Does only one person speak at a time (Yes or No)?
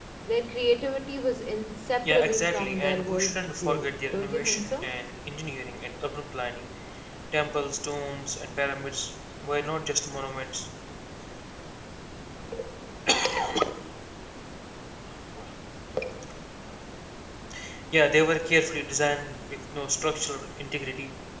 No